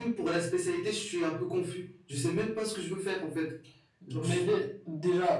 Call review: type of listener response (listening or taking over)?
taking over